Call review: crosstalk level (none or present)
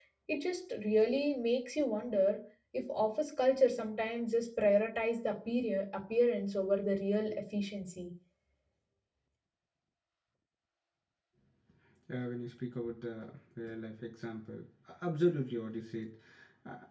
none